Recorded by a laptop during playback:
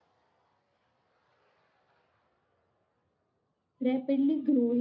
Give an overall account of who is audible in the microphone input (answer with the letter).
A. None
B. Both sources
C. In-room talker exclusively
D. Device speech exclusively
C